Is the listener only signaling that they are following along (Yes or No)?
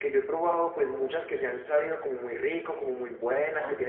Yes